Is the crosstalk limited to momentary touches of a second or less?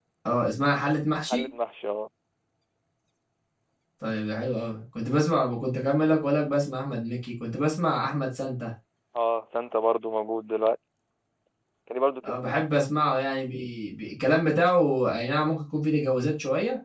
Yes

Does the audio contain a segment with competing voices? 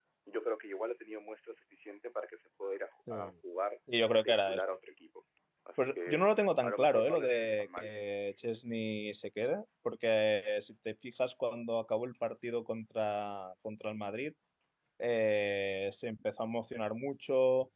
Yes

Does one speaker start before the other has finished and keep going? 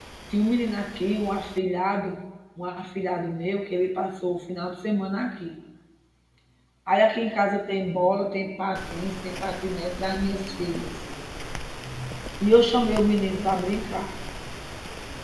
No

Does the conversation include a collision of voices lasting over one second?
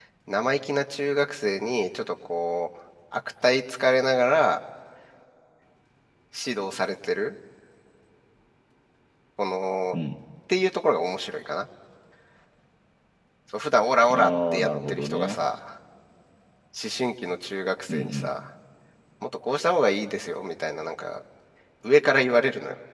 Yes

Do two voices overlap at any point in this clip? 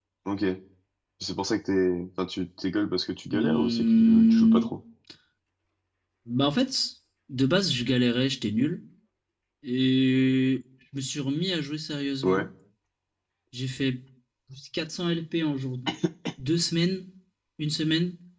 Yes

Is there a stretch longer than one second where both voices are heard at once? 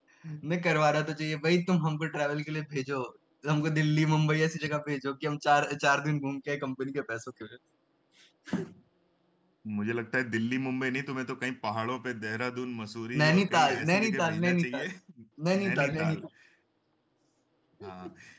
Yes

